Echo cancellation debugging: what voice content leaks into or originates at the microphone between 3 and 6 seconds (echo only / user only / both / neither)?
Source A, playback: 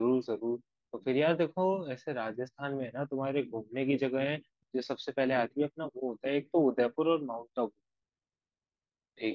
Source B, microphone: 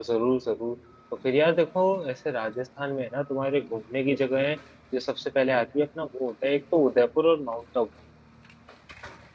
echo only